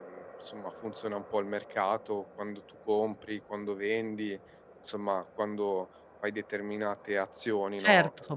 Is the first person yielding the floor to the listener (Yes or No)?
Yes